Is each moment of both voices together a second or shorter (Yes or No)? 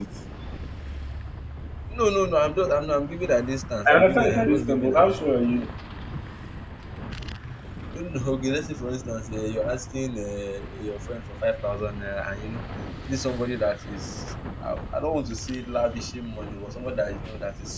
No